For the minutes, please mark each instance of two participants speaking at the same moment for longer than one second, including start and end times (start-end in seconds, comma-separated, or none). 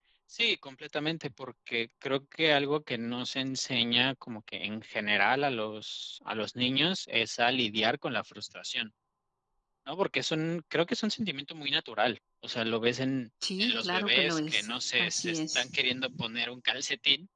13.6-15.7